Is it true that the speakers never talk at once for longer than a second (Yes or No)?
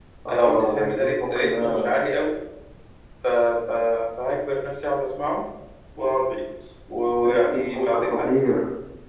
No